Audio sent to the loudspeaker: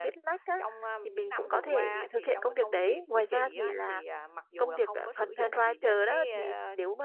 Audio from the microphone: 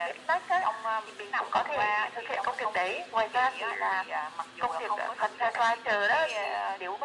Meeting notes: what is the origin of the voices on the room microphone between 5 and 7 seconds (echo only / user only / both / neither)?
echo only